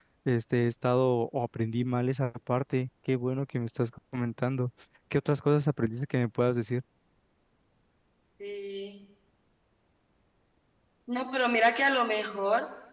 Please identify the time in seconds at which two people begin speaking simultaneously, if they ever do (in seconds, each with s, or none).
none